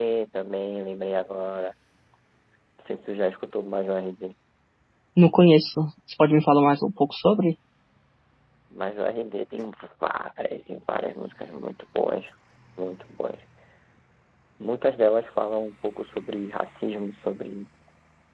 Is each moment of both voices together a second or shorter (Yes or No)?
Yes